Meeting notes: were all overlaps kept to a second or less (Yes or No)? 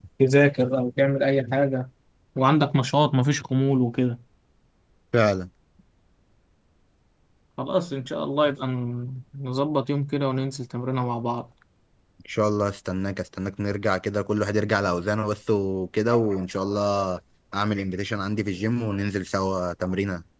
Yes